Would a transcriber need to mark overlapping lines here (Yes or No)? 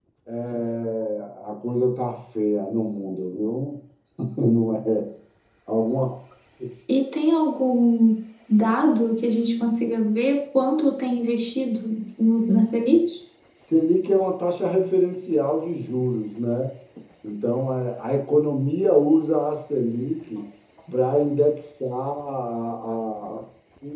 No